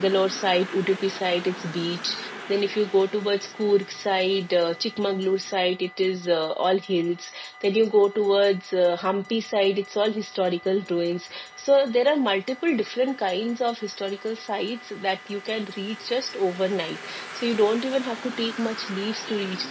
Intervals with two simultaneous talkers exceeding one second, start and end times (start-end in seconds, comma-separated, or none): none